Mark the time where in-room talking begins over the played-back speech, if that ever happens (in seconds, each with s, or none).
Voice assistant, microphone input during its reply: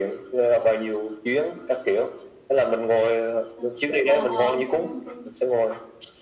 3.5 s